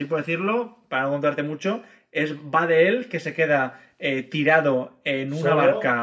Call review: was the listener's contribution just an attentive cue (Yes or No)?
Yes